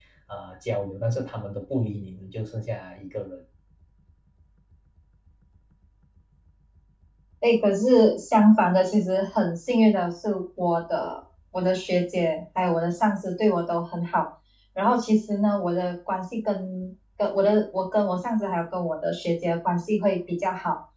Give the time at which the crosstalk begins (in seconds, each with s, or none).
none